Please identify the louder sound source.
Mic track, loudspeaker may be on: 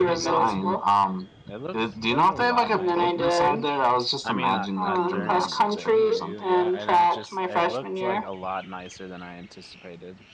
echo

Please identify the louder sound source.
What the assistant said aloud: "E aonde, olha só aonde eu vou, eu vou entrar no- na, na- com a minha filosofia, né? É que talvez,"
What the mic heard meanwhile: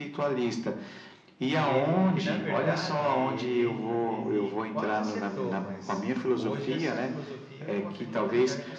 echo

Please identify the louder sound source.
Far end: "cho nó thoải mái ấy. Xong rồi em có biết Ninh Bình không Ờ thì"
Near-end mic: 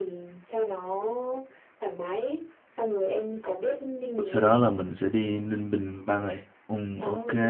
user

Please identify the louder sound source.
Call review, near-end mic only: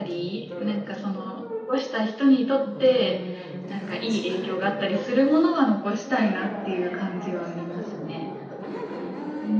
user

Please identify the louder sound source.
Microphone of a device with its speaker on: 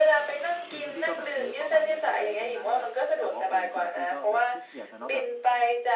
echo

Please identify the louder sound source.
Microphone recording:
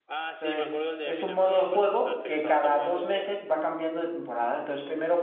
user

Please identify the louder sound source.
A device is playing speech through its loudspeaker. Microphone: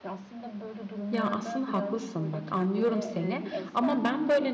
user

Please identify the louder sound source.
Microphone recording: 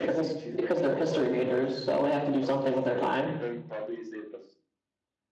user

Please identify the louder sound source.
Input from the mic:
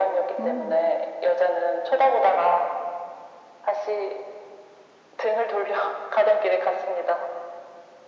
echo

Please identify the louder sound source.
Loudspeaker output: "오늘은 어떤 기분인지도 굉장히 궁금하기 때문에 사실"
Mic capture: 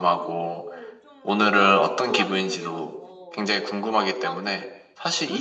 echo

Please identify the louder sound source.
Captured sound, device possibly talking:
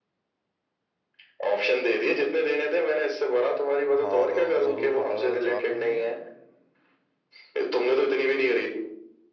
echo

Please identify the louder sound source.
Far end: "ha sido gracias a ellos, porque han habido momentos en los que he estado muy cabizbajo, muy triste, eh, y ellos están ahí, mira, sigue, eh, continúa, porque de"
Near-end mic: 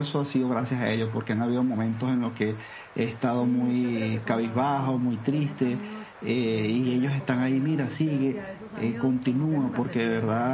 echo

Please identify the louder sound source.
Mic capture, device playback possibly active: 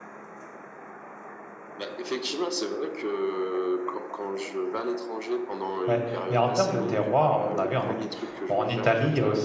user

